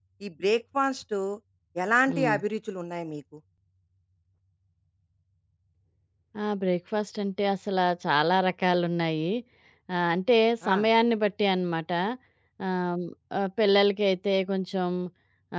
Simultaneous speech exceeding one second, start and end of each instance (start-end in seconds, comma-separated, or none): none